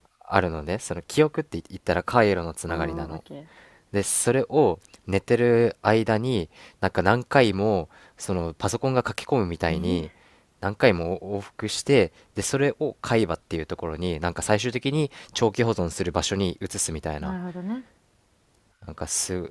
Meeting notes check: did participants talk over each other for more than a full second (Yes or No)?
No